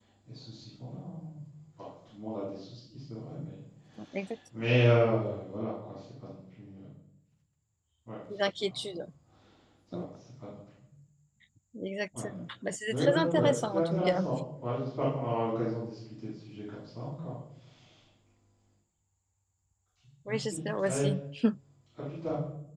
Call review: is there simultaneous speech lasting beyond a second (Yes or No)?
Yes